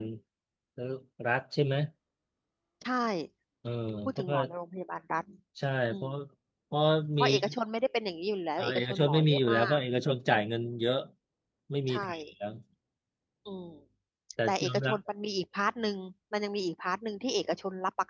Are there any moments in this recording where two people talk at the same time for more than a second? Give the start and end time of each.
8.6-9.8

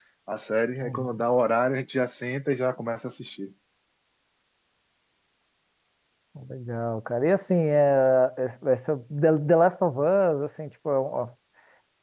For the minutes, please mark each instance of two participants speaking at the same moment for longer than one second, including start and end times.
none

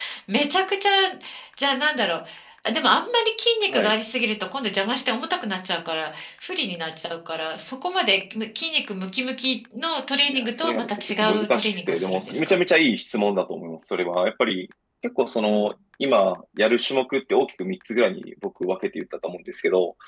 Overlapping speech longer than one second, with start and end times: 10.3-12.6

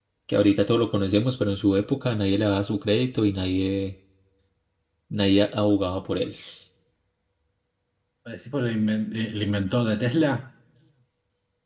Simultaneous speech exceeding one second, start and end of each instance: none

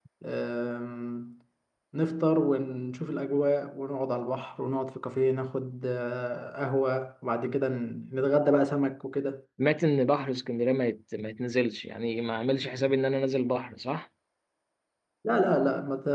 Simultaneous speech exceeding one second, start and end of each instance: none

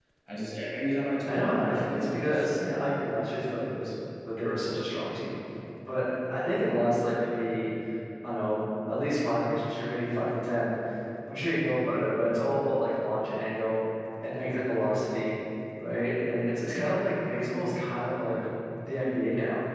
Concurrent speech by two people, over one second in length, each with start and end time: 1.2-3.2

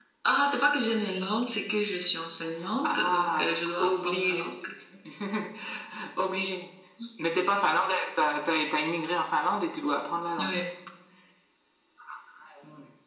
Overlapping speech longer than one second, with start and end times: 2.8-4.6

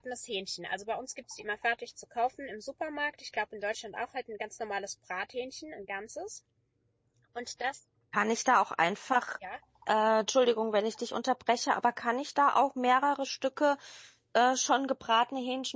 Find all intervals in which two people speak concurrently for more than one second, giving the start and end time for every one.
none

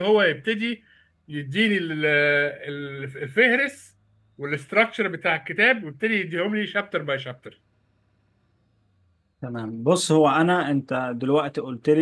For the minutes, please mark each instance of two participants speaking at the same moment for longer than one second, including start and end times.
none

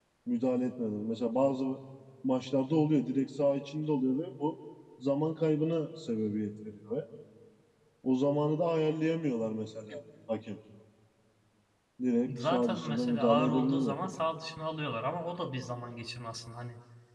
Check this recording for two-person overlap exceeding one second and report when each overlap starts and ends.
12.4-13.9

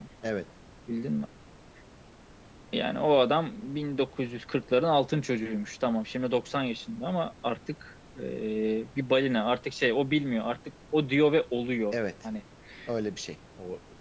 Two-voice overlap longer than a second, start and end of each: none

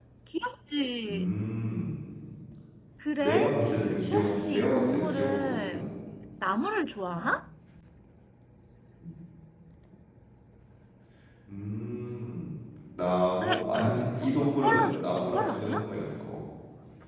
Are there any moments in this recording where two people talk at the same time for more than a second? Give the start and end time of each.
4.1-5.8, 13.4-15.8

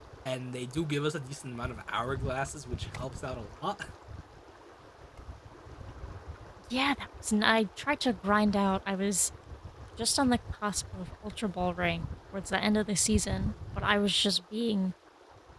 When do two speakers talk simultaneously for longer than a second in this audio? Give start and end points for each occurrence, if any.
none

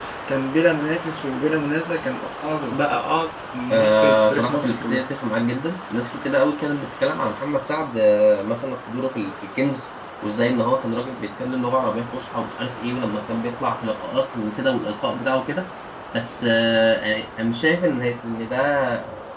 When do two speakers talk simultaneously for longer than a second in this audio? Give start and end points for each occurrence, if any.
3.7-5.0

